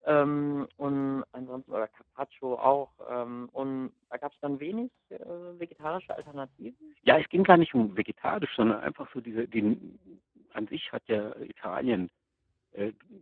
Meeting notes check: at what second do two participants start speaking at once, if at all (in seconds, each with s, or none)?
none